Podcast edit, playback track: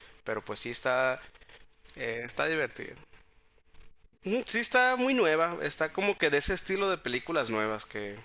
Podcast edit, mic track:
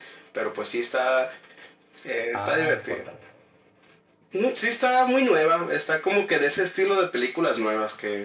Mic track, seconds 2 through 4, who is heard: both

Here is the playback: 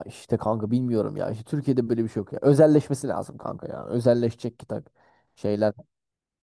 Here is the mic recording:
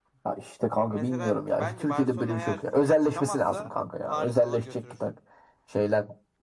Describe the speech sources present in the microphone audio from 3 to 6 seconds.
both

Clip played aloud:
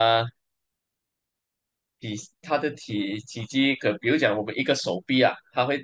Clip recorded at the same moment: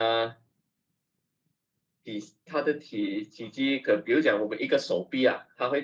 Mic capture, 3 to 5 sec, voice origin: echo only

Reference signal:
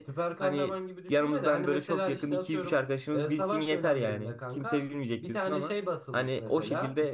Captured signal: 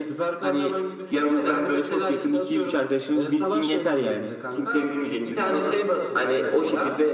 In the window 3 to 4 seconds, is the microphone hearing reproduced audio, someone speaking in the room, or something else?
echo only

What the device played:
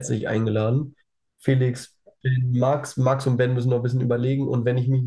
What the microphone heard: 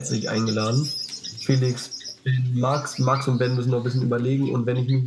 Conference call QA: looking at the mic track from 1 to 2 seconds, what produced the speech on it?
echo only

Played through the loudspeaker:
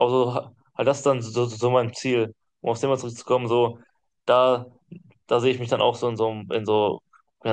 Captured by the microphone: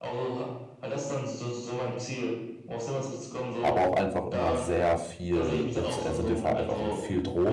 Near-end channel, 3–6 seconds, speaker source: both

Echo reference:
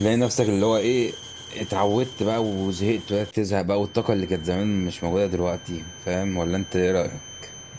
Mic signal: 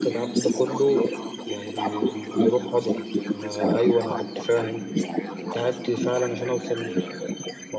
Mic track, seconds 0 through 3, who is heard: both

